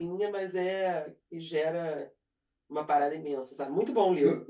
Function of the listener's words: taking over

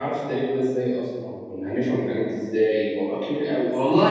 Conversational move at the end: taking over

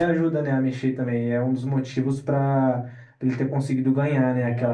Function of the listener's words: taking over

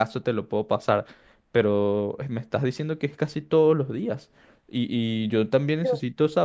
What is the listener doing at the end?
listening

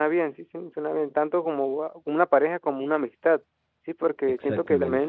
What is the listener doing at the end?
listening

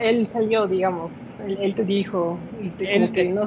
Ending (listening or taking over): taking over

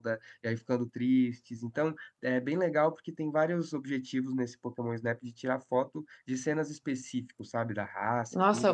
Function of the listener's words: taking over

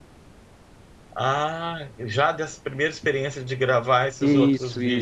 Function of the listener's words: taking over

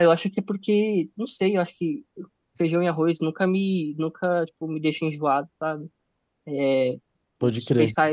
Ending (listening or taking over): listening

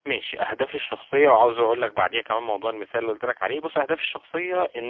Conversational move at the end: listening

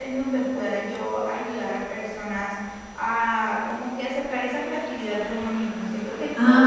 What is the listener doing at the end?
listening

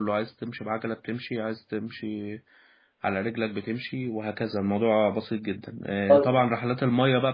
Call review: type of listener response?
listening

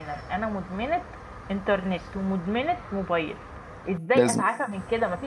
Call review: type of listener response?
listening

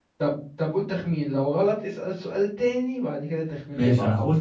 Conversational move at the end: taking over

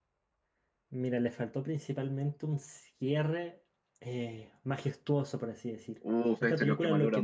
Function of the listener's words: taking over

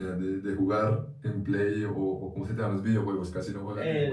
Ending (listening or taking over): taking over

